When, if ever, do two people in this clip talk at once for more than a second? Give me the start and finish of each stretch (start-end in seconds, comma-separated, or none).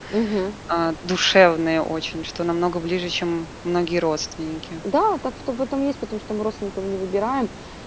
none